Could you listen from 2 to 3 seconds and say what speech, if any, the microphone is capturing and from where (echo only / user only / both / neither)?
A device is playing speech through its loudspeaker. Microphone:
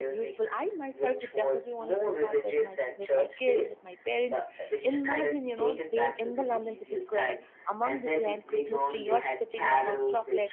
both